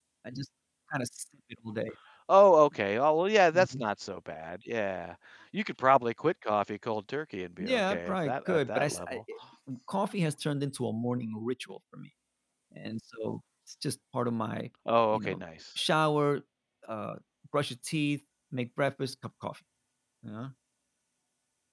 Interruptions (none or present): present